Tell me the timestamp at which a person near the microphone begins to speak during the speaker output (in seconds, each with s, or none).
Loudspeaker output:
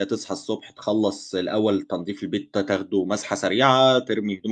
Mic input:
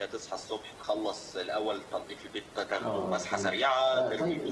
2.8 s